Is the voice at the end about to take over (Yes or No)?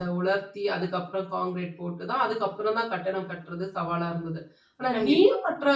No